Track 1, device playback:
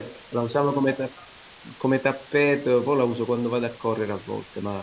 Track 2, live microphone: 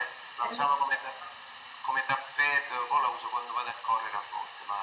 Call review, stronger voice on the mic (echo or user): echo